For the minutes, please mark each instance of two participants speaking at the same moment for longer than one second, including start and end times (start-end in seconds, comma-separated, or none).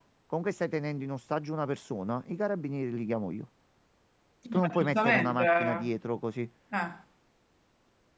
4.5-5.8